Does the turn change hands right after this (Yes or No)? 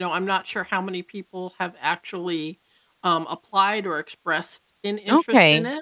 Yes